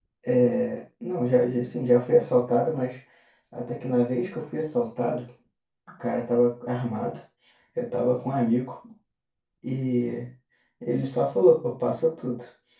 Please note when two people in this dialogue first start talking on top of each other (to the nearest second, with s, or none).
none